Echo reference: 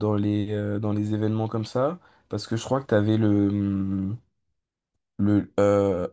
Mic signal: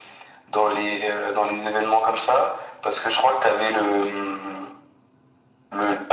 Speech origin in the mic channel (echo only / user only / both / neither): echo only